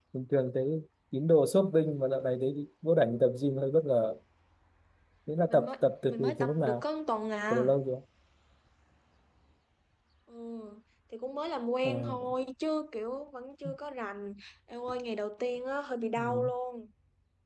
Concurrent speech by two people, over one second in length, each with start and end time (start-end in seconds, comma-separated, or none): 5.5-6.8